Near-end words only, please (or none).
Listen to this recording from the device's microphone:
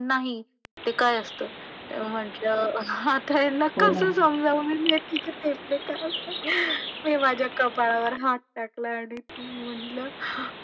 हो ना.